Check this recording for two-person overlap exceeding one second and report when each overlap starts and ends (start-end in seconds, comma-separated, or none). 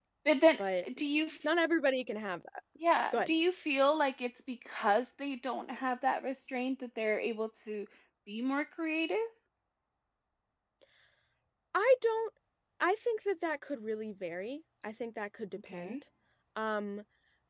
none